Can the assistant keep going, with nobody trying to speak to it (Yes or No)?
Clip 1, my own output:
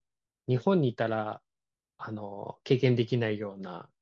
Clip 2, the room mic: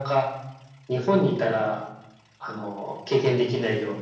Yes